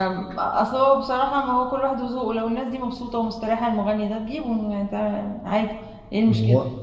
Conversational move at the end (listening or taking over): taking over